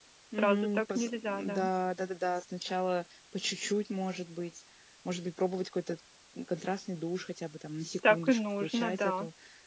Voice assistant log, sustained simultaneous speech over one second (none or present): present